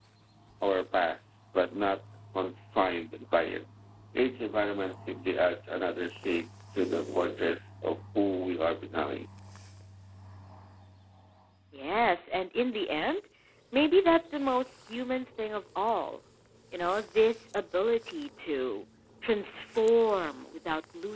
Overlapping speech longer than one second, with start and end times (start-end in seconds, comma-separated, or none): none